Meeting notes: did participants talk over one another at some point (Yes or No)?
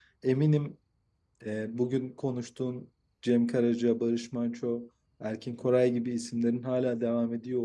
No